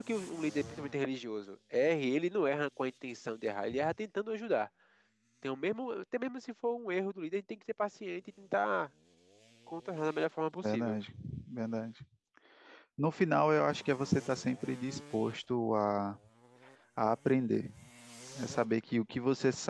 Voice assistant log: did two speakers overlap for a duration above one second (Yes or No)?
No